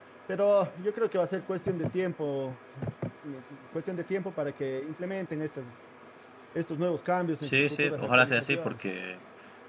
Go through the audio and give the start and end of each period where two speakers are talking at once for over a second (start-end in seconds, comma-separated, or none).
7.4-8.8